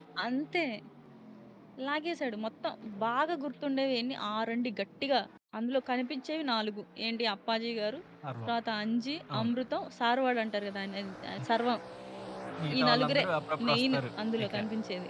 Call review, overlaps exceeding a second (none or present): none